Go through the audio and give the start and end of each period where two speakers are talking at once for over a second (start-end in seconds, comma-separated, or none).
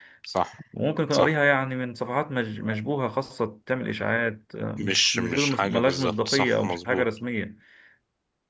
4.8-7.0